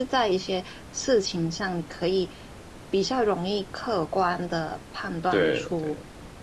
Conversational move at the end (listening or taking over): listening